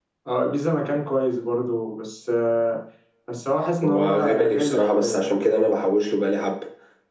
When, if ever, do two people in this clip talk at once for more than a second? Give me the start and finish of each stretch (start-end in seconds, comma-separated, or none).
3.8-5.6